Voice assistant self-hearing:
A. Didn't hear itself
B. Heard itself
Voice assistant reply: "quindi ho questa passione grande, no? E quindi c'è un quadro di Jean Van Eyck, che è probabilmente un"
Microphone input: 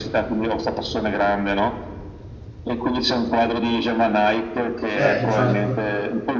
B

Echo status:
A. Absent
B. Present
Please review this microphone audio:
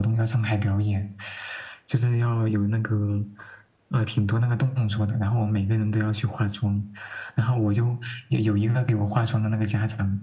B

